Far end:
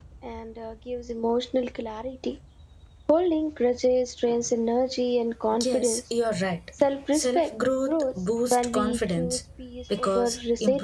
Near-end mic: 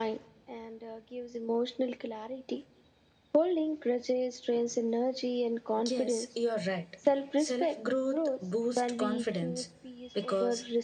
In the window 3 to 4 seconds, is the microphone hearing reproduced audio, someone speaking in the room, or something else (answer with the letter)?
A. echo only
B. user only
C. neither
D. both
A